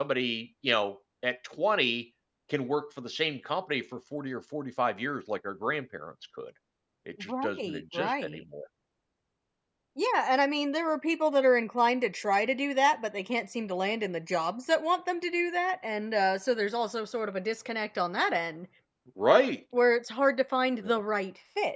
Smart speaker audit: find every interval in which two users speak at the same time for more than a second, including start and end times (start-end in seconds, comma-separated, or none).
7.2-8.4